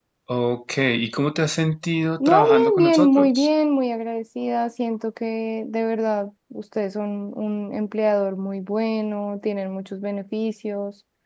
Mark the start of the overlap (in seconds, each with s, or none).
2.2 s